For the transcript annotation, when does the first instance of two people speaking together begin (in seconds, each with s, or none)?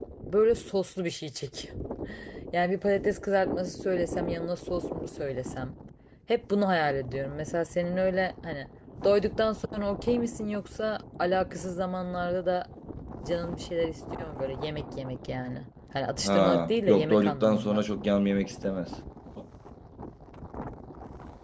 16.2 s